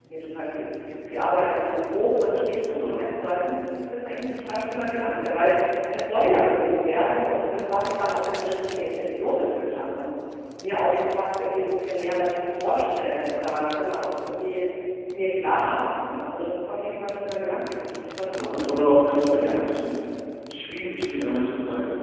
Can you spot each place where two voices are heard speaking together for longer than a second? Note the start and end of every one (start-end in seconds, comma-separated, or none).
18.2-19.6